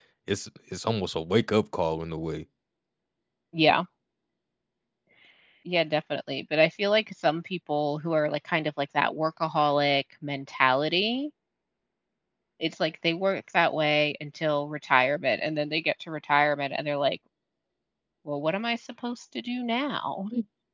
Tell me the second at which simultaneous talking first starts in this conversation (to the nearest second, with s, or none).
none